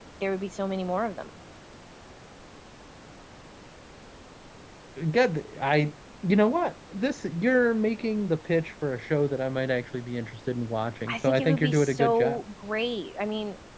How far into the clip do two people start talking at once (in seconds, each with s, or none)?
11.1 s